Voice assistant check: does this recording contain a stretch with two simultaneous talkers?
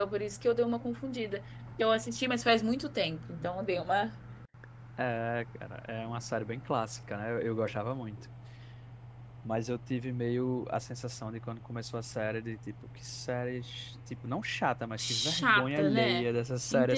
Yes, from 15.0 s

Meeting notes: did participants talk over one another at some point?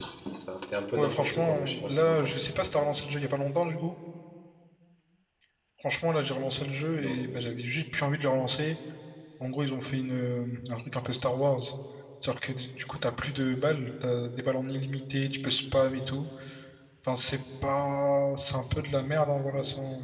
Yes, from 1.0 s

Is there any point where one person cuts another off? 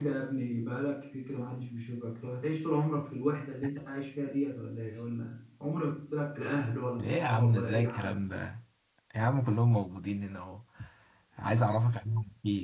Yes, from 7.0 s

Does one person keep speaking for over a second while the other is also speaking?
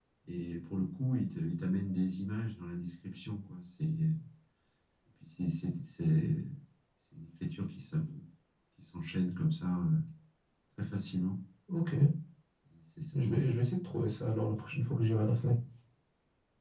No

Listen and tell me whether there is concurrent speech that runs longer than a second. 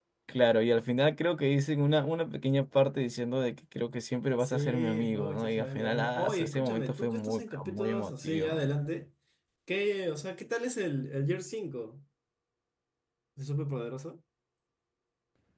Yes, from 4.4 s

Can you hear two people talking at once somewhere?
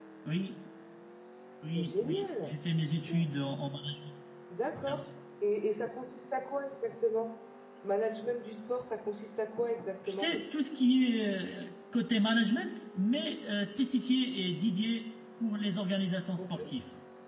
Yes, from 1.6 s

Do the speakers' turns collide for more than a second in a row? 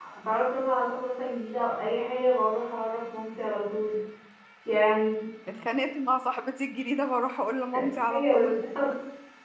No

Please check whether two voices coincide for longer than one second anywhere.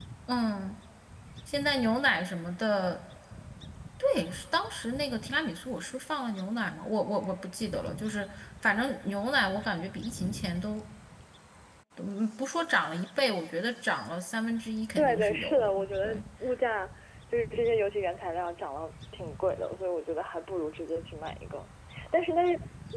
Yes, from 15.0 s

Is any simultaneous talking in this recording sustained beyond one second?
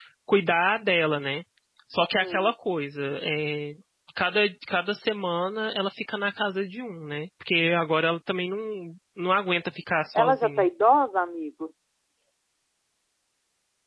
No

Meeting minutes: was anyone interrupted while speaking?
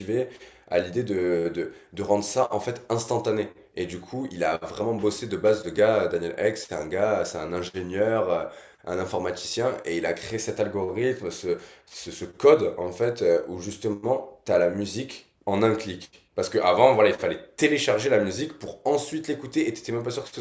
No

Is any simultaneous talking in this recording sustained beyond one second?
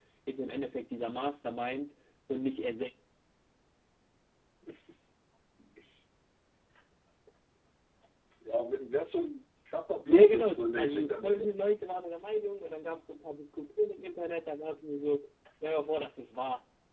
Yes, from 10.1 s

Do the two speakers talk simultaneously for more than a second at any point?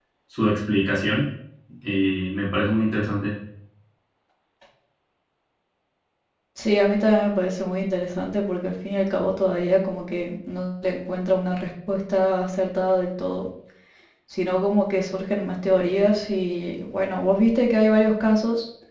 No

